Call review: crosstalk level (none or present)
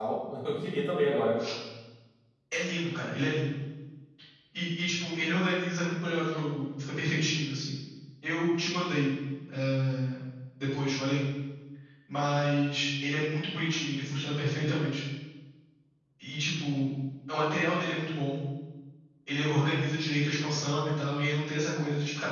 none